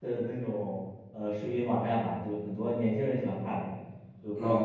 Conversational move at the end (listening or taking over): taking over